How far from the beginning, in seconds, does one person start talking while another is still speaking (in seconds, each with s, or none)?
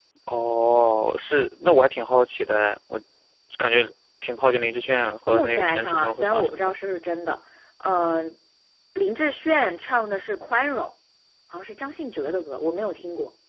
5.3 s